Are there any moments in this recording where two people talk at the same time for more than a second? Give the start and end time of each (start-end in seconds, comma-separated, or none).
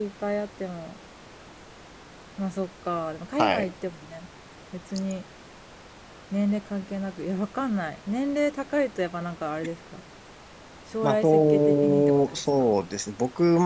11.0-12.7